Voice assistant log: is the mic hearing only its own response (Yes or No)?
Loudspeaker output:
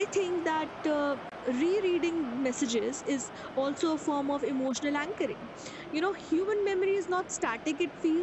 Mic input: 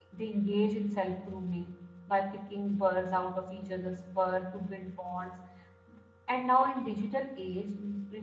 No